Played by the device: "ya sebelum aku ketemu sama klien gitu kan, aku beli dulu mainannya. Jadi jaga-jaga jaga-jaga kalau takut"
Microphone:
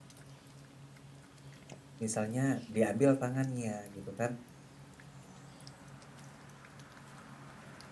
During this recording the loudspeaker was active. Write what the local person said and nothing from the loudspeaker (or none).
Misalnya diambil tangannya gitu kan,